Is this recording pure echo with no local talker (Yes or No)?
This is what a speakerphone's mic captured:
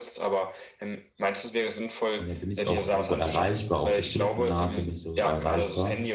No